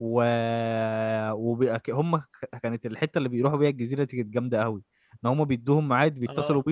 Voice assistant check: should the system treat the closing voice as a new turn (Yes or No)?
No